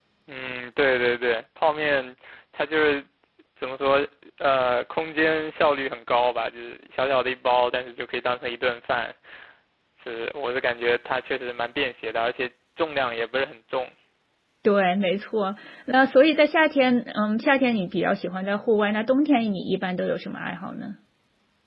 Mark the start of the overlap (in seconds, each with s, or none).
none